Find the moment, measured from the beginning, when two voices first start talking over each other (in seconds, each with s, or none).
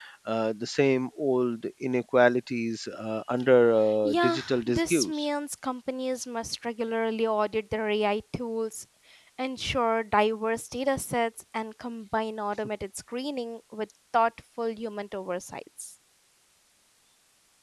4.0 s